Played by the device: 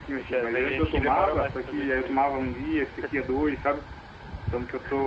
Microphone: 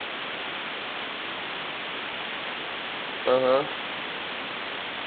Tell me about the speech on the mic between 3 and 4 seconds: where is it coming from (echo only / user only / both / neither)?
user only